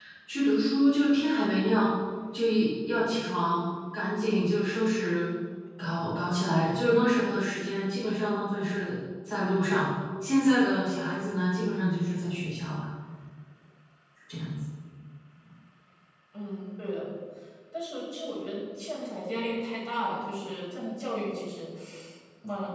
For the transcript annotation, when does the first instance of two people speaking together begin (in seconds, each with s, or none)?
none